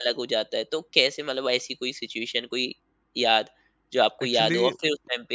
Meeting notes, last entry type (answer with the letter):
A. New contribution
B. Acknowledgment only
B